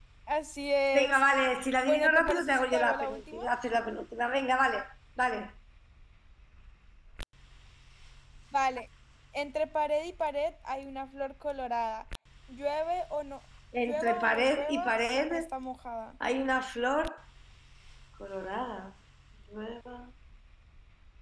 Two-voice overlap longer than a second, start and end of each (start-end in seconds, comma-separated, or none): 1.9-3.4, 13.8-15.4